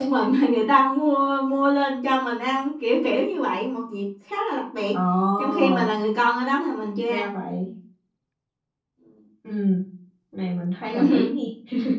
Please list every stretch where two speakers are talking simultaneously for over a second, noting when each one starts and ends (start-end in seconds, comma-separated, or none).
none